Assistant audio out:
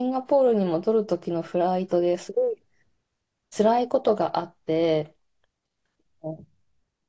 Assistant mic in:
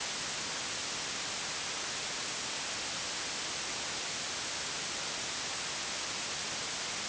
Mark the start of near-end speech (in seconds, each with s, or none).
none